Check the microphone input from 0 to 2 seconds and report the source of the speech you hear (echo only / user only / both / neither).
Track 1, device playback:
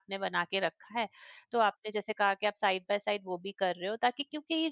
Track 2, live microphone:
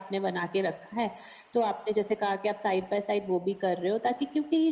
echo only